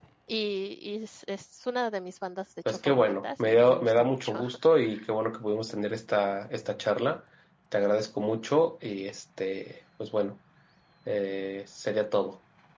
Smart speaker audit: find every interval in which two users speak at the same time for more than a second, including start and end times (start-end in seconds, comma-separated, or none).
2.7-4.4